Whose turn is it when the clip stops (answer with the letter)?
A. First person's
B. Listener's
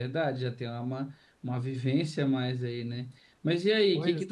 A